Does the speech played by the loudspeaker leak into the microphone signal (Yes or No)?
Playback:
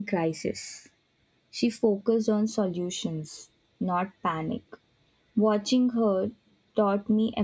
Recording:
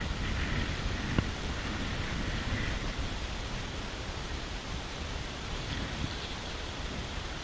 No